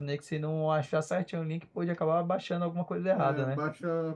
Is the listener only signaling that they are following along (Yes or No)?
No